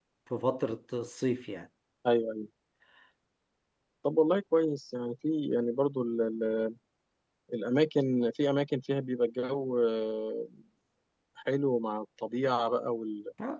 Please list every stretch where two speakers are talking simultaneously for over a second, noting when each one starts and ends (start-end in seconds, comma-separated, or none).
none